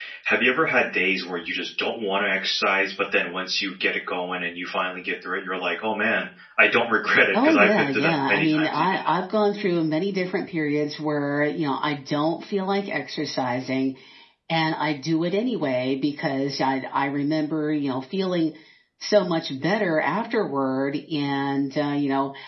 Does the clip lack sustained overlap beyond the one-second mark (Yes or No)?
No